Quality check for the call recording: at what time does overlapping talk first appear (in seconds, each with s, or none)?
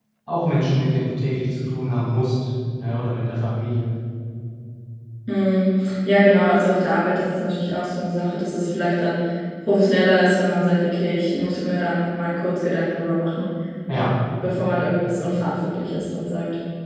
none